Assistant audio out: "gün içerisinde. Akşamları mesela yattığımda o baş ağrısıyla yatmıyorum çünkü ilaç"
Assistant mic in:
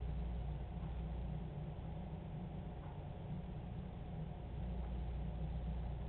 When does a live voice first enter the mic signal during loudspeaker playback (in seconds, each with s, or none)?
none